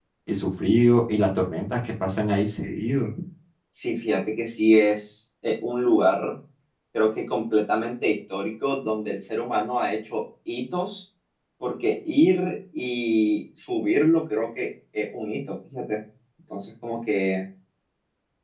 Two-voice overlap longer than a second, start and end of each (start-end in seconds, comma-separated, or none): none